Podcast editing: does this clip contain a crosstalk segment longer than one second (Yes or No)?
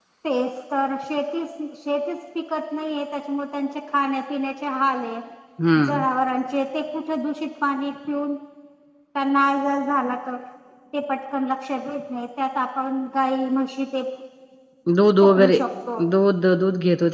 No